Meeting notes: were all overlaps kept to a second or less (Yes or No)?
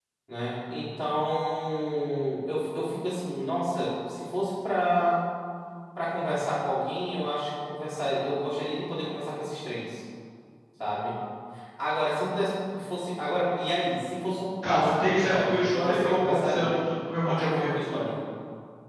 No